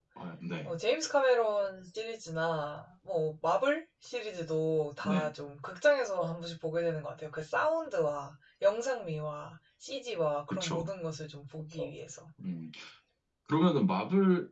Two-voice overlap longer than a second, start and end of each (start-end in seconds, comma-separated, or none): none